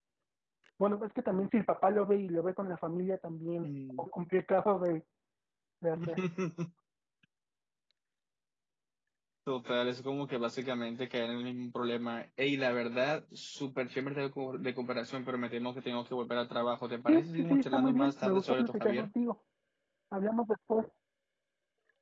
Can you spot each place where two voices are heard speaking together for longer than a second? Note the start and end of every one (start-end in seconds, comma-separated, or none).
17.0-19.1